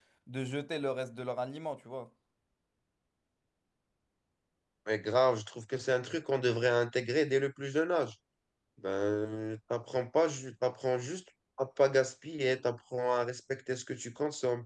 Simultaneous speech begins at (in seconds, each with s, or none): none